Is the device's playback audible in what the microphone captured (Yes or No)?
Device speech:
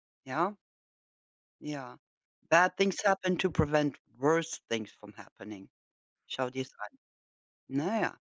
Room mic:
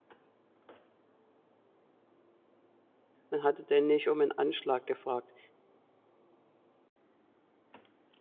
No